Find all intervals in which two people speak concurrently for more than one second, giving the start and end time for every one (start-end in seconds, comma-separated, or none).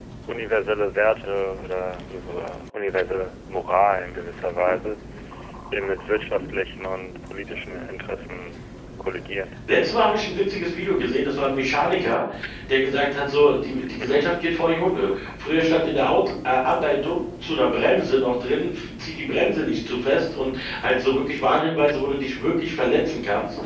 none